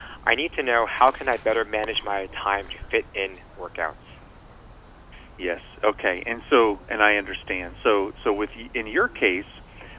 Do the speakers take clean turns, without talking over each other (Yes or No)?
Yes